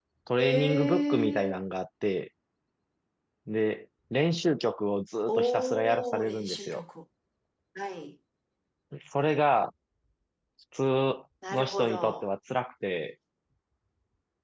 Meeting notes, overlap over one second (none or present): present